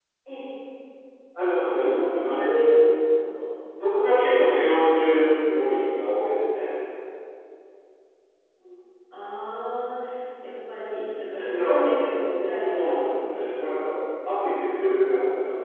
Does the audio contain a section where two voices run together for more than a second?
Yes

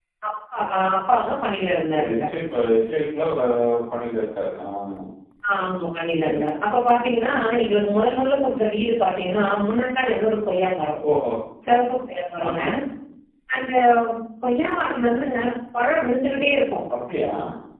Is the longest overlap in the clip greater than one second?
No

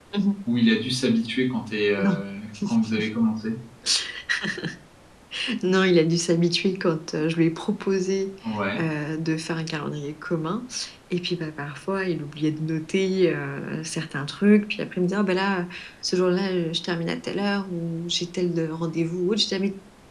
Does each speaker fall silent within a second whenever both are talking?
Yes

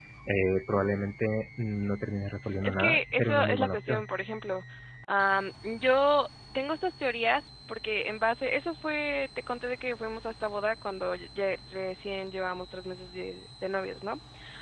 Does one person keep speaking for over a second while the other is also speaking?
Yes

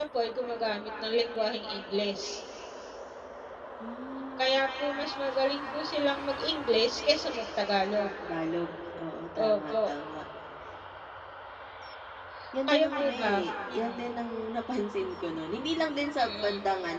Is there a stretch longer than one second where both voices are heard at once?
Yes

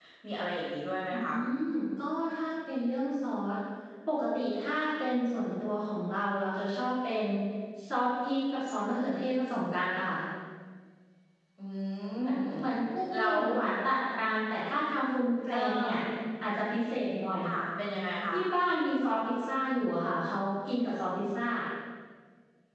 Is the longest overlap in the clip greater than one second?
No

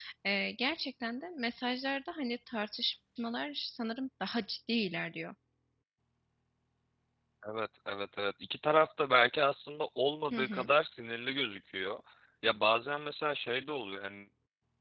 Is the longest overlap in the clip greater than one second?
No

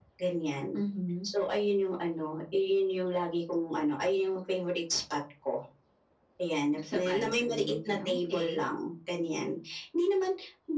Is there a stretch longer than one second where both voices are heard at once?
Yes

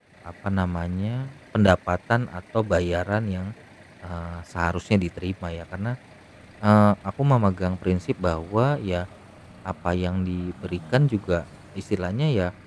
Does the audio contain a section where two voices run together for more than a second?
No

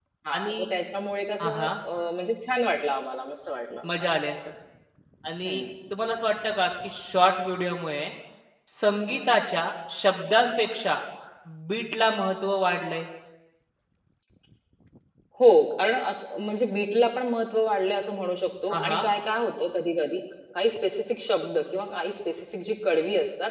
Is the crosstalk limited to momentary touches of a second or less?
Yes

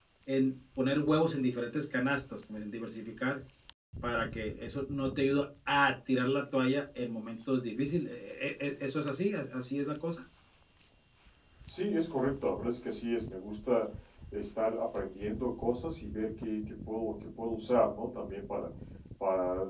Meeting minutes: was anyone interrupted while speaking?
No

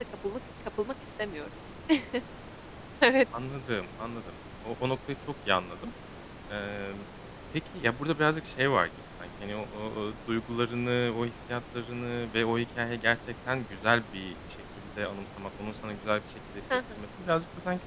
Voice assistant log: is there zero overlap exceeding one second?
Yes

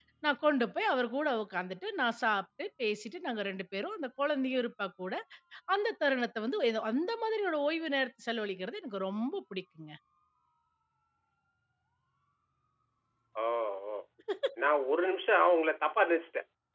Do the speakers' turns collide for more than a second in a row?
No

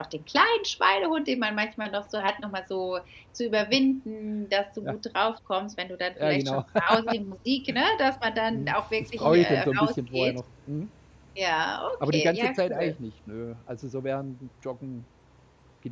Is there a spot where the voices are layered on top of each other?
Yes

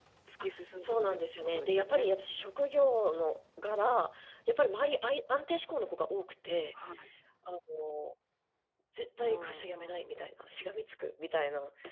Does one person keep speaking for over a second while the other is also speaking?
Yes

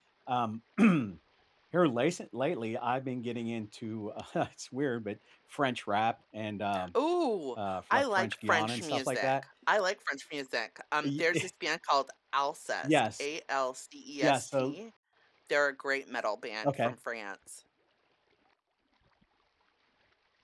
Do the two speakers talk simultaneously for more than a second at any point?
Yes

